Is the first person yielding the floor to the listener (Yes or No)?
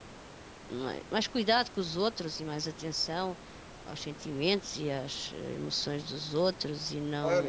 Yes